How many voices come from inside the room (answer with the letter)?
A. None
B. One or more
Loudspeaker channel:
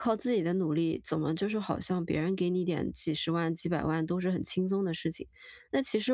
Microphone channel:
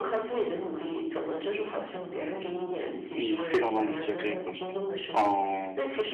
B